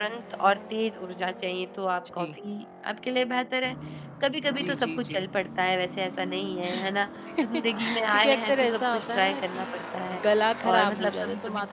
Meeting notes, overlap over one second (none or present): present